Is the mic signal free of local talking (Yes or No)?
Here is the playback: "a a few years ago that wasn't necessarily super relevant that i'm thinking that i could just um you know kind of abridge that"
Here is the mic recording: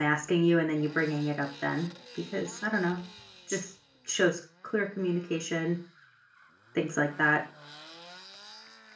No